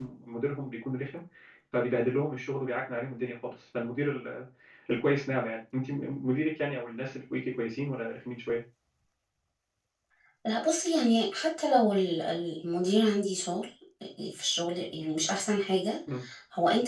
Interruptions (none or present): none